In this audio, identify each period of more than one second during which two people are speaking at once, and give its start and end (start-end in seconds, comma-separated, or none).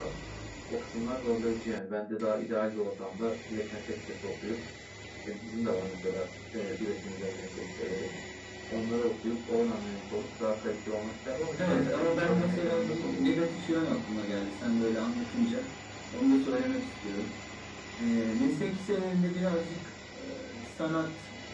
11.6-13.2